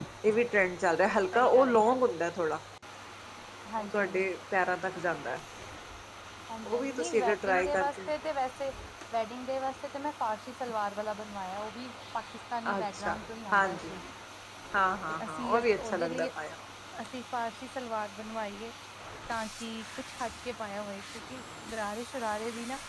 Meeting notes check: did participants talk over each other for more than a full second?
Yes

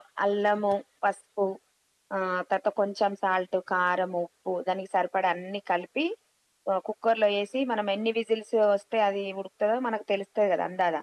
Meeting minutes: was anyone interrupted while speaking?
No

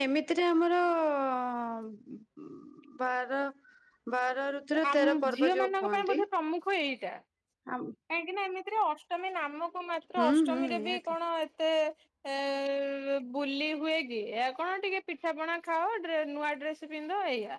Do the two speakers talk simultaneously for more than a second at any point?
Yes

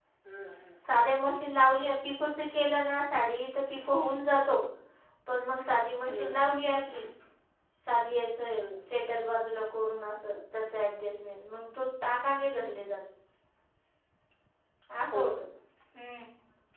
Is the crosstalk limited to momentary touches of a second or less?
Yes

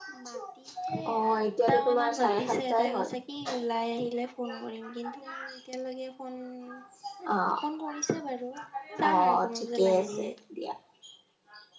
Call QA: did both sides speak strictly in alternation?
No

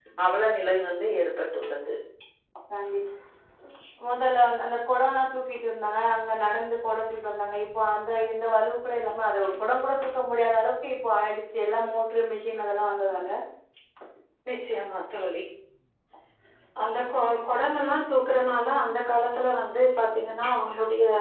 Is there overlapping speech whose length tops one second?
No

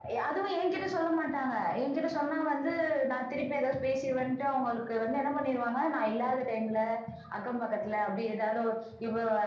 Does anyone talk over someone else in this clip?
No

